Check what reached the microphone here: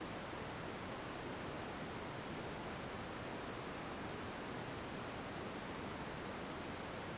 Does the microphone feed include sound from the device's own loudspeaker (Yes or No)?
No